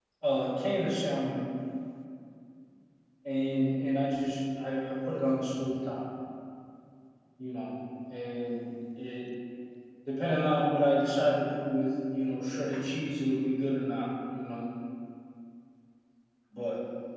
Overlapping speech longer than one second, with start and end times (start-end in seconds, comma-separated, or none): none